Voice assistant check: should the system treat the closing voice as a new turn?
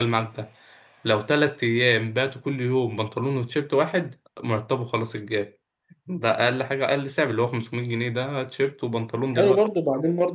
Yes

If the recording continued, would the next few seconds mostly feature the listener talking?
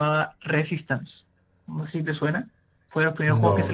No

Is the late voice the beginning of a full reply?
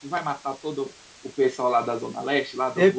Yes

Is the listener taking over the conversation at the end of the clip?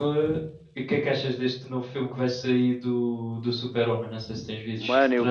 Yes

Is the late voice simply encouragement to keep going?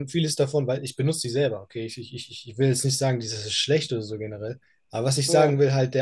Yes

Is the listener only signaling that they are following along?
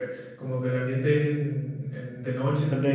Yes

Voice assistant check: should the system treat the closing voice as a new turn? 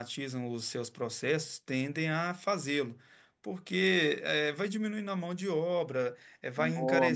No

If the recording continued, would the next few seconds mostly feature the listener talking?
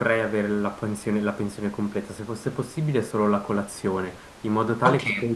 Yes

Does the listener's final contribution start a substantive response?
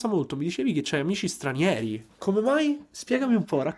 Yes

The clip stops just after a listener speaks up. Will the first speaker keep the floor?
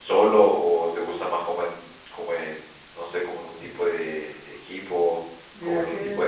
No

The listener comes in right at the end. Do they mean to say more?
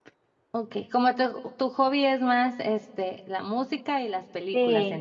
Yes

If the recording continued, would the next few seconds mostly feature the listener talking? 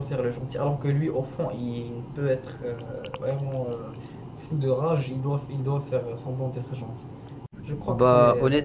Yes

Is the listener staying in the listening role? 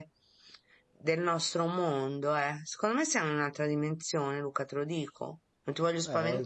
No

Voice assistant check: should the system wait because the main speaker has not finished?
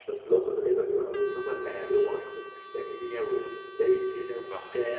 No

